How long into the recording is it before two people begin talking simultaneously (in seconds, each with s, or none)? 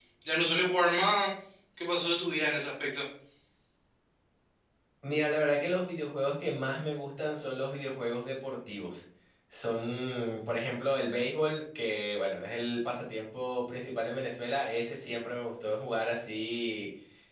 none